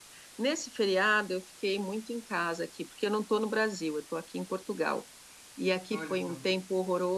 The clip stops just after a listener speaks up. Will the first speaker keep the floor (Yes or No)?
Yes